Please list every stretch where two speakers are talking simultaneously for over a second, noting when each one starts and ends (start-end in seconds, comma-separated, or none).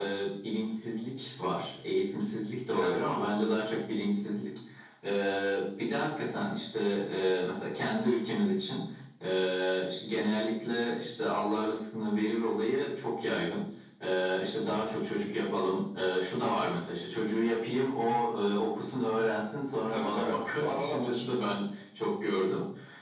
19.9-21.2